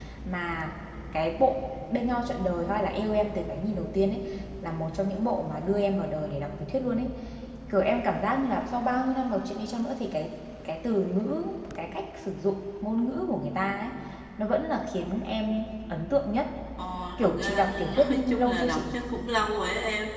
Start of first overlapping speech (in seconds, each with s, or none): 17.2 s